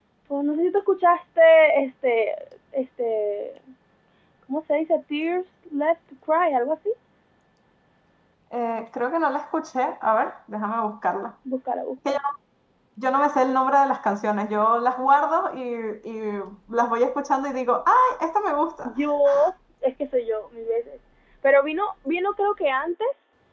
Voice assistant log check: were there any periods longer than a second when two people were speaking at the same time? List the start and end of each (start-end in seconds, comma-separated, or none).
none